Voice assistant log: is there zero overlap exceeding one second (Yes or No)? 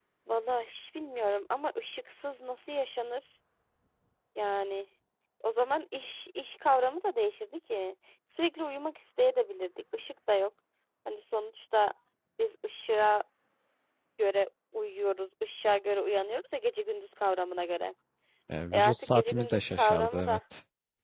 No